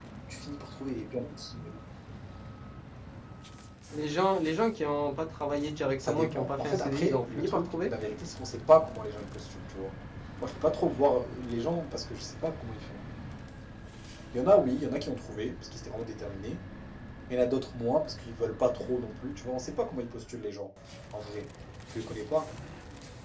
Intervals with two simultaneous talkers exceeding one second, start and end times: 6.0-7.9

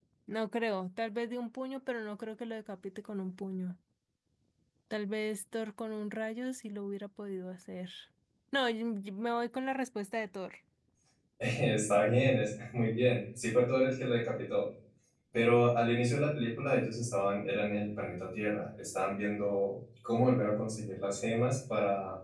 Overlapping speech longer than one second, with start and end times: none

